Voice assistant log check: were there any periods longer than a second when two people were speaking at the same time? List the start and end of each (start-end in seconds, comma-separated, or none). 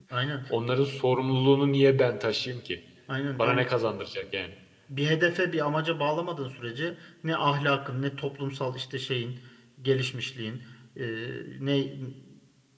none